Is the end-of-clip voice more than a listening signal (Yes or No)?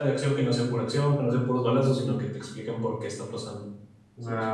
Yes